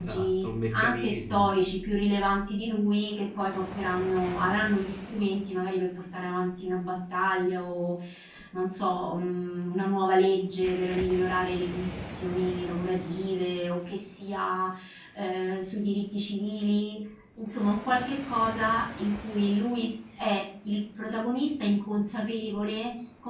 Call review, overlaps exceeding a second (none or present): present